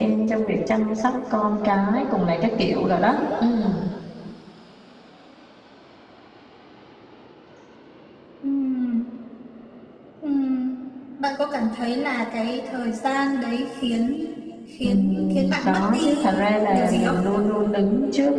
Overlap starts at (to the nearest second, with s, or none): 15 s